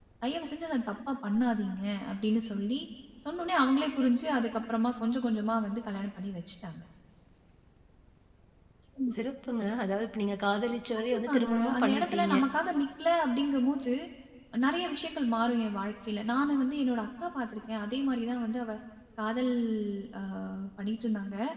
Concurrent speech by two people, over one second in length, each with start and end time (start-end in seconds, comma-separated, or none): 11.1-12.3